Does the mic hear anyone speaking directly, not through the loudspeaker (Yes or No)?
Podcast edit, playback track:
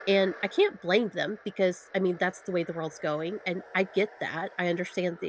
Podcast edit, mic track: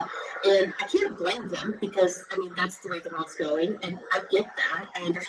No